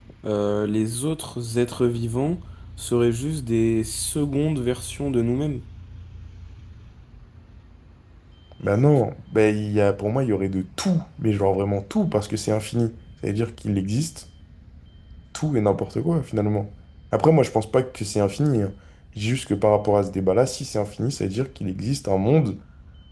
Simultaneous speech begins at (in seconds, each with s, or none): none